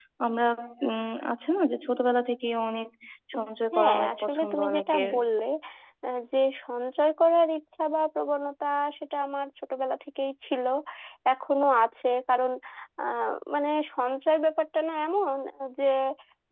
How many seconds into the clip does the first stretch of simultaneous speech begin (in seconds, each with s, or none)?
3.3 s